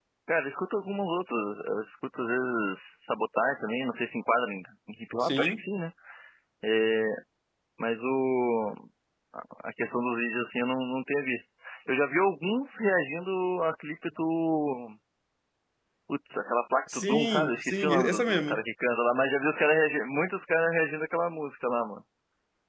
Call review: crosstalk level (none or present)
present